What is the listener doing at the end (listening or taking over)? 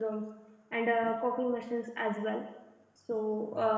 listening